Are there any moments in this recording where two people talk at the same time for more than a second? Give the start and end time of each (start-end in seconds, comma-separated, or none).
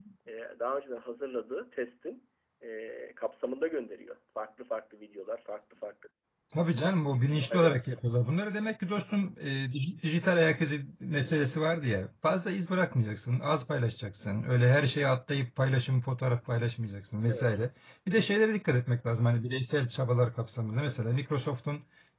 none